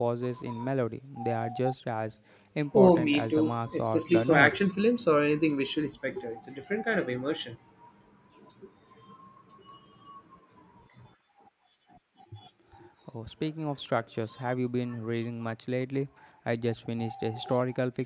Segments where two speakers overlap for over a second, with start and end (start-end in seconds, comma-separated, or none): 2.7-4.5